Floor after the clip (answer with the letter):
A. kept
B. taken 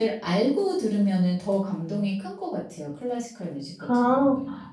B